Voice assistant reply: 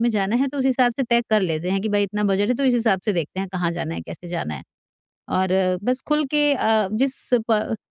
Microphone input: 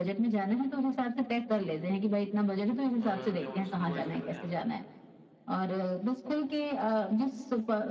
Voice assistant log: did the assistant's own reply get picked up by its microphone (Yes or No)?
Yes